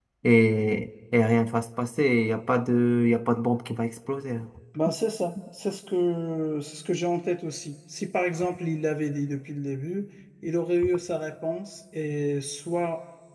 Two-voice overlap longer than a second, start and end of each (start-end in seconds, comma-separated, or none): none